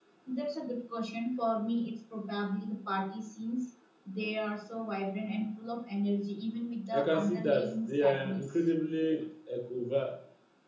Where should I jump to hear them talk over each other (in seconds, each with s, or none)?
6.9 s